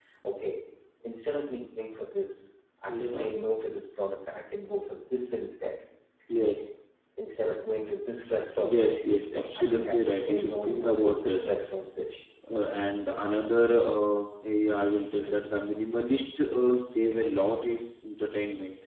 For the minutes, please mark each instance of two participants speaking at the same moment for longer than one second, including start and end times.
9.6-11.4

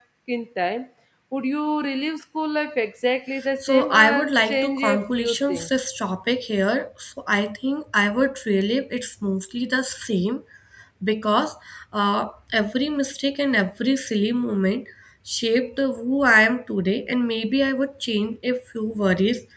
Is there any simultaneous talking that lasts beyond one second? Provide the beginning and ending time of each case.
3.6-5.7

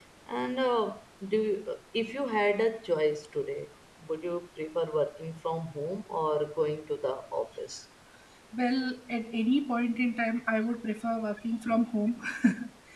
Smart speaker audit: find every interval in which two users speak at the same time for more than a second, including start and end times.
none

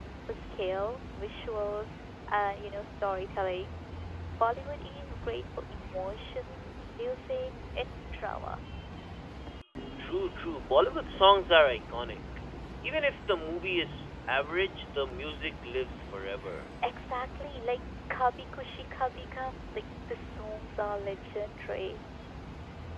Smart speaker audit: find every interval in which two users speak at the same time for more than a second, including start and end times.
none

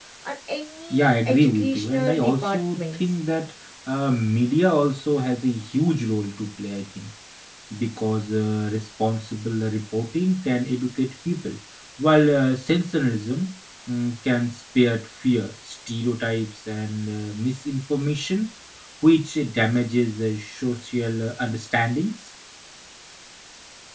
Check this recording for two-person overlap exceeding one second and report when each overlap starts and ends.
0.9-3.0

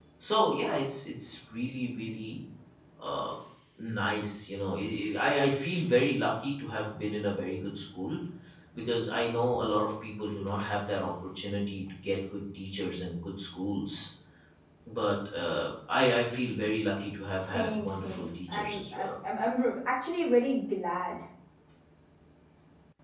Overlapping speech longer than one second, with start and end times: 17.5-19.1

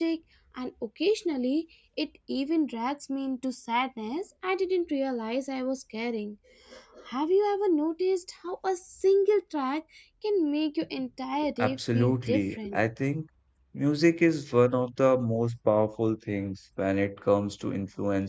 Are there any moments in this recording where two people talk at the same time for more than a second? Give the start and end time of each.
11.6-12.8

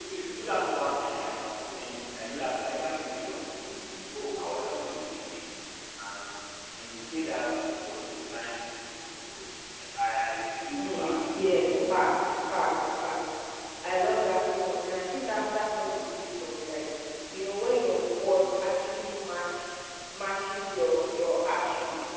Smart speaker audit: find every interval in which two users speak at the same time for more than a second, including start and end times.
10.7-11.9

